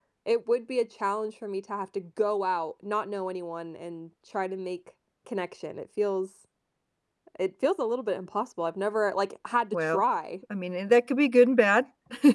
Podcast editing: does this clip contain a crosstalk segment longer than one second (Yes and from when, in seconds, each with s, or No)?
No